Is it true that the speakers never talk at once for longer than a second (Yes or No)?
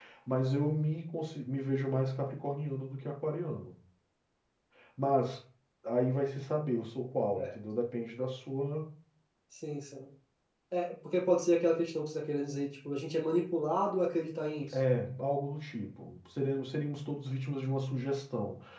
Yes